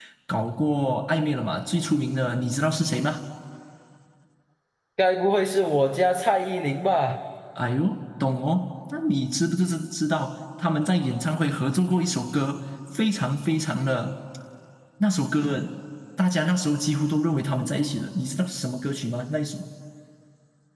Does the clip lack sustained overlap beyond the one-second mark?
Yes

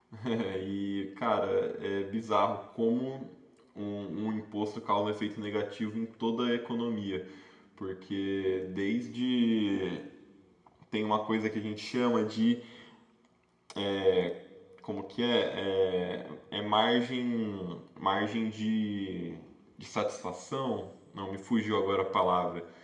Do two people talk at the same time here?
No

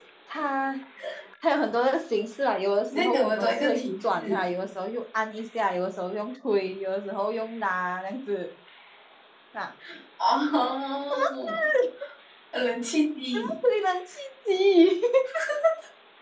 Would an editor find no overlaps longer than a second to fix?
No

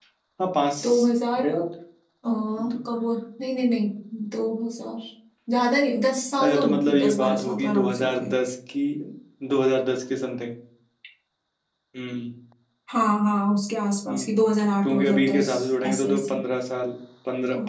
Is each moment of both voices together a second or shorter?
No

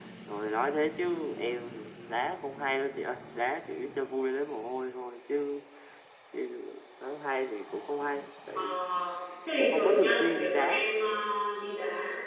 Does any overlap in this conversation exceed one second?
Yes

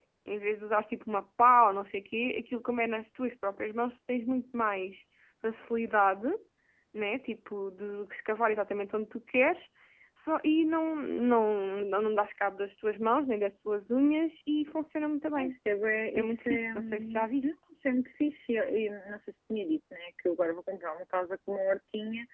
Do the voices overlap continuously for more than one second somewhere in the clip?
Yes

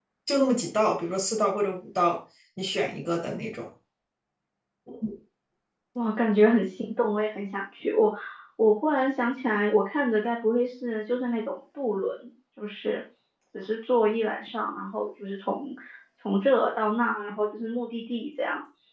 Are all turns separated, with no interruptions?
Yes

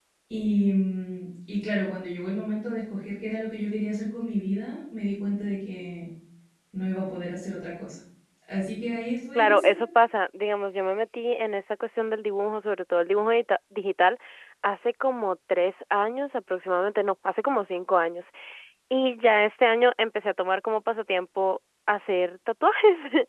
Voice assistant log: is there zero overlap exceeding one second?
Yes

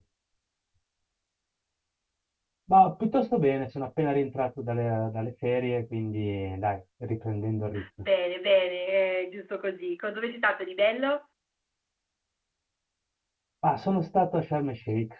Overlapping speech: No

